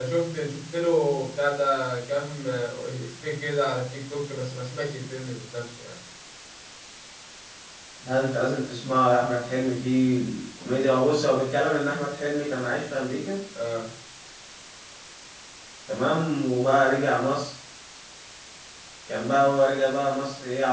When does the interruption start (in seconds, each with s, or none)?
none